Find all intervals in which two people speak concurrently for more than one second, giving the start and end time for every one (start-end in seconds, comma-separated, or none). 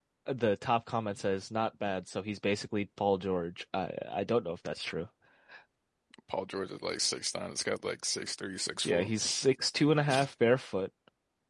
none